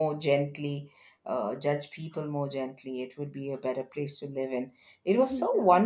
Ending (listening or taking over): listening